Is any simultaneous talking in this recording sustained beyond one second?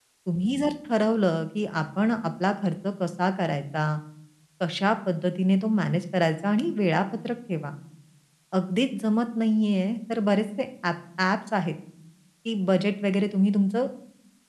No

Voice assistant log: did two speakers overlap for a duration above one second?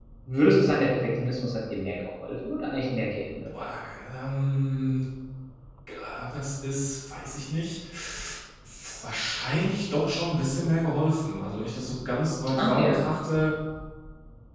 No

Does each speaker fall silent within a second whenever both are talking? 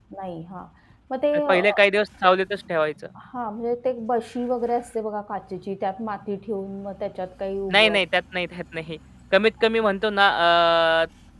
Yes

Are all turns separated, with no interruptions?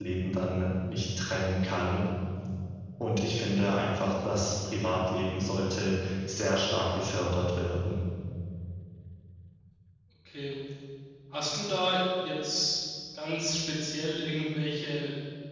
Yes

